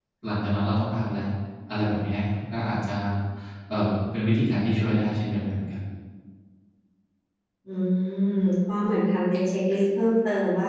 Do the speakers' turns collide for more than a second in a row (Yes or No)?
No